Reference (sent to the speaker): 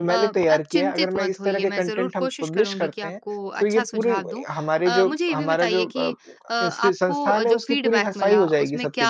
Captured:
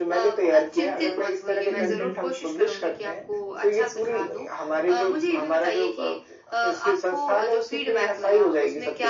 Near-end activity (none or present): present